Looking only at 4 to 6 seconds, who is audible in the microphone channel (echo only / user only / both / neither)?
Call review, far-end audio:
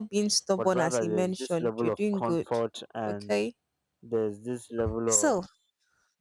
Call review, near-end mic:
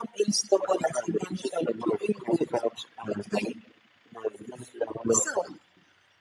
echo only